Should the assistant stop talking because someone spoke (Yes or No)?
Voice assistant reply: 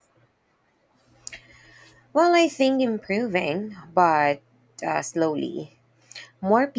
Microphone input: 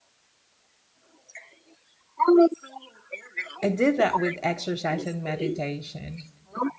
Yes